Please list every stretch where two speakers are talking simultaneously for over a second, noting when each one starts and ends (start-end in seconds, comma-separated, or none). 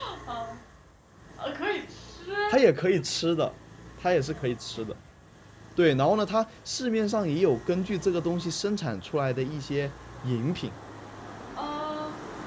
none